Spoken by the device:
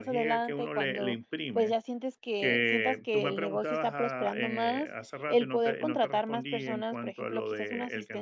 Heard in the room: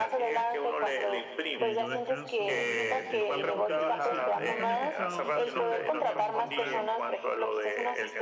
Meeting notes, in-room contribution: present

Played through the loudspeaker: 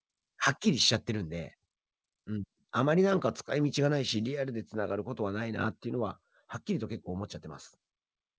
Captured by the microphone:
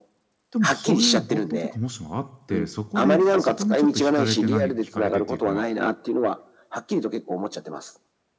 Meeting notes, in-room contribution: present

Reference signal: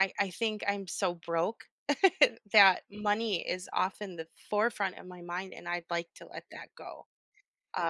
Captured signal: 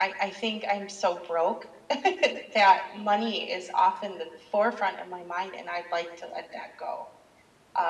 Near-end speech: none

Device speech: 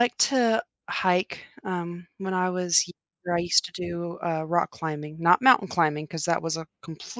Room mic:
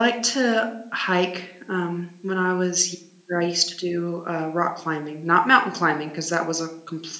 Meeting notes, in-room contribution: none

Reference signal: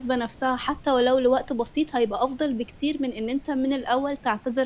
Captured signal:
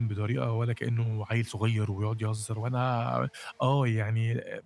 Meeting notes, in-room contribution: present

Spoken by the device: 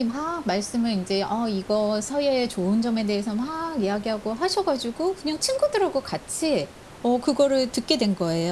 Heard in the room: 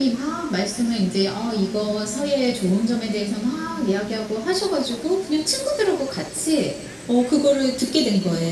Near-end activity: none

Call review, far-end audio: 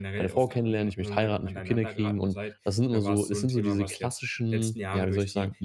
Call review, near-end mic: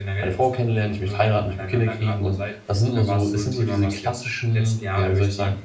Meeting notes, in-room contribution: none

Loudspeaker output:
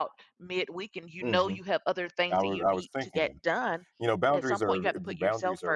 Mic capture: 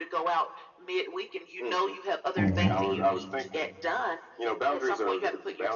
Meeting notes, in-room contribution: present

